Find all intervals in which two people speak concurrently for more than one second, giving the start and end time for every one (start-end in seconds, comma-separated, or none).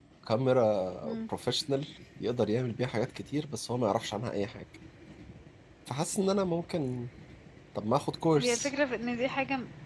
none